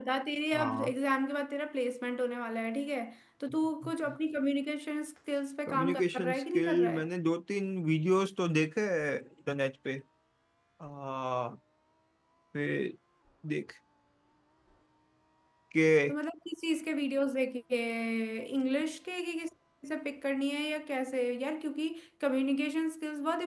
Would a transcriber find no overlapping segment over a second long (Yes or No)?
No